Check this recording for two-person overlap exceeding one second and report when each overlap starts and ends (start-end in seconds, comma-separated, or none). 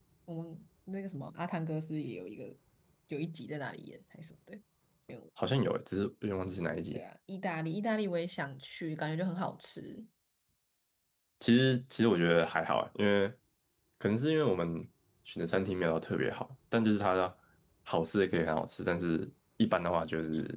none